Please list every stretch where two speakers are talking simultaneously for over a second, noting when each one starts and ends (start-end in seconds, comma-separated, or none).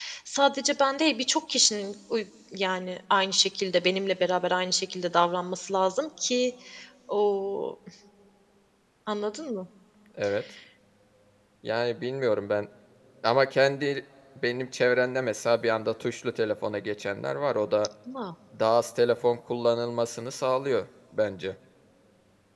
none